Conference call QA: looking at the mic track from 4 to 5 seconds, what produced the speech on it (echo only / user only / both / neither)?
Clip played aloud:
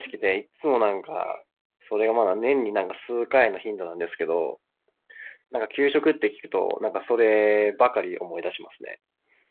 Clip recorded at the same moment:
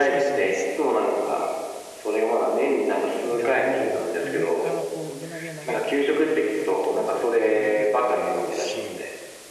both